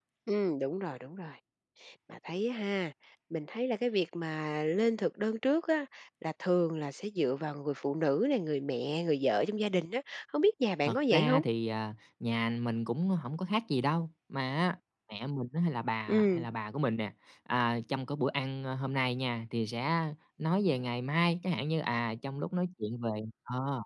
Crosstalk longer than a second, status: none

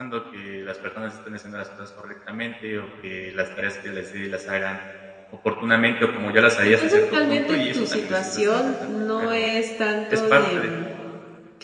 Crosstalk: present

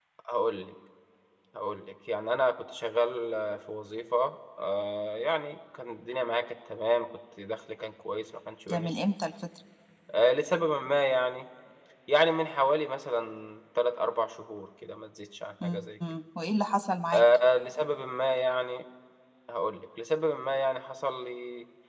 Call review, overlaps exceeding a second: none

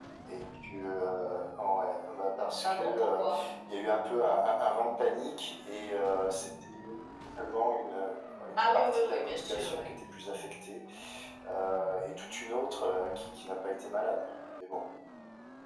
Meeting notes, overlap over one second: present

